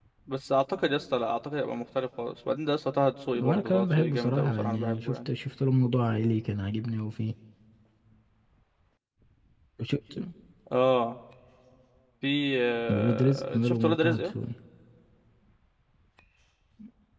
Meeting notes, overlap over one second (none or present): present